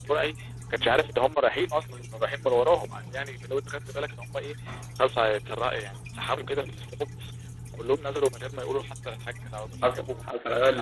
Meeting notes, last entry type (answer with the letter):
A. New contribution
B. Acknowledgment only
A